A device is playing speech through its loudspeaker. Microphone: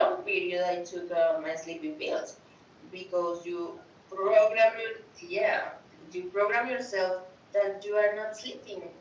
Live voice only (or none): none